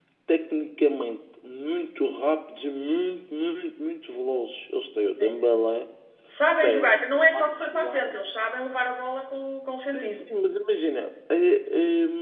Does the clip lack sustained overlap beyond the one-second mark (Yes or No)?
No